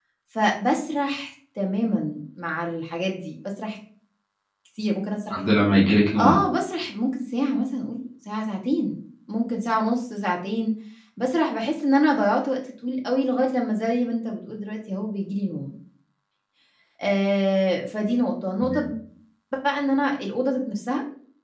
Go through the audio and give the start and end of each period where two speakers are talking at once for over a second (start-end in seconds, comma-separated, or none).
none